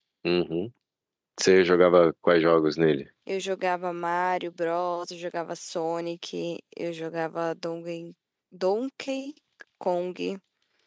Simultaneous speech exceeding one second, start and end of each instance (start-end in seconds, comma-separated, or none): none